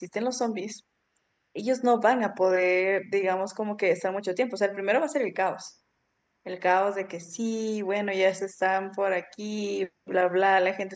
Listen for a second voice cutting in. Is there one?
No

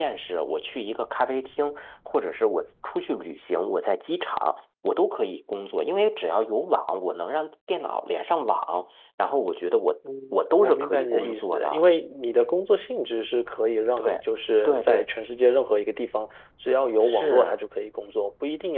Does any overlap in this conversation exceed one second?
Yes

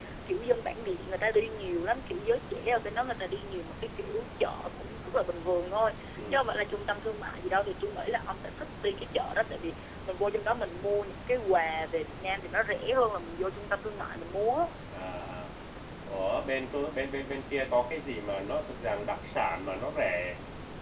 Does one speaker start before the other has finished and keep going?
No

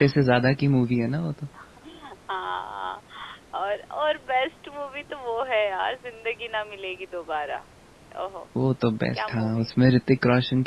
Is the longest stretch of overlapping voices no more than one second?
Yes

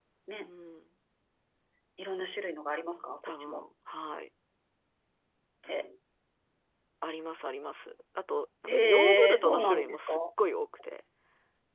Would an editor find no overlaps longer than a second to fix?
No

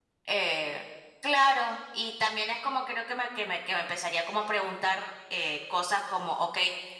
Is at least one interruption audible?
No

